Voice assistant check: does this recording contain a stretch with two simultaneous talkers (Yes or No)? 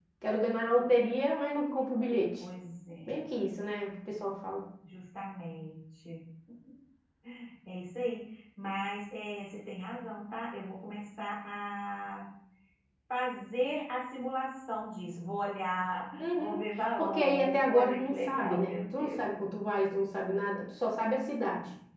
Yes